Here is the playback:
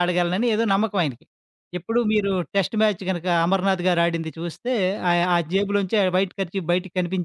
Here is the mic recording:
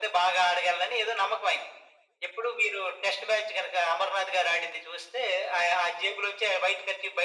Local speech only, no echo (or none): none